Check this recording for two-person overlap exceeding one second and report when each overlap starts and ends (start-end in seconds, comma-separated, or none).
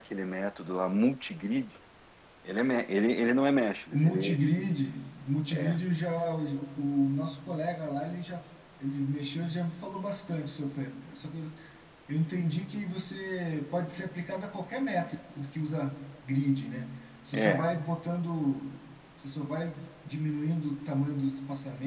none